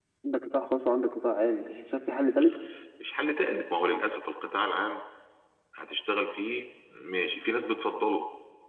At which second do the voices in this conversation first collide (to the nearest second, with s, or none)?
none